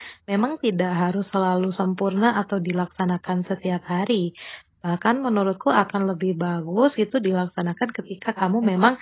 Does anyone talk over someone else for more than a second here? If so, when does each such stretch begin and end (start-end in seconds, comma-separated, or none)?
none